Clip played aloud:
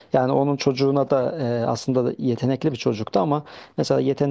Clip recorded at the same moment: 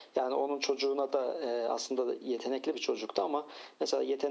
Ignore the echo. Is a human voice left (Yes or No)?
No